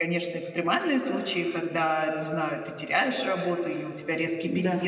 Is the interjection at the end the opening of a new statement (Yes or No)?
No